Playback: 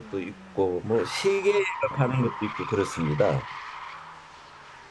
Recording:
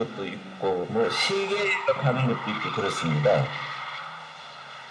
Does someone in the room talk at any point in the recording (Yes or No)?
No